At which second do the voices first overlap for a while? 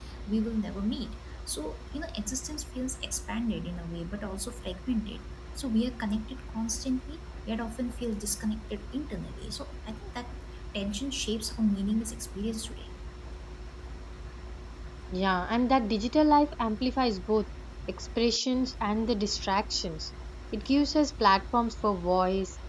none

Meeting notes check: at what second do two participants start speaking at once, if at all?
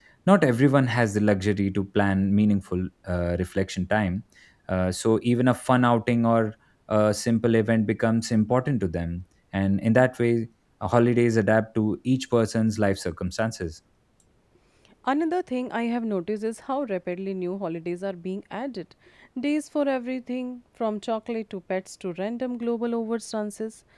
none

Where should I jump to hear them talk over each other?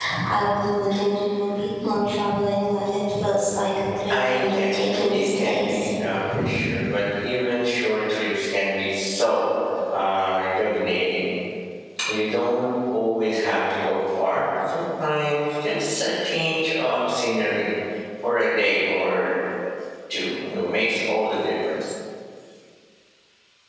4 s

